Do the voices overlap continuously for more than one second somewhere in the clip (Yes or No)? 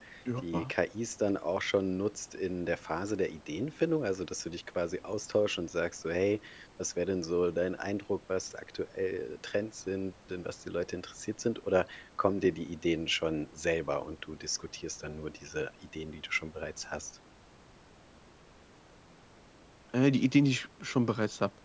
No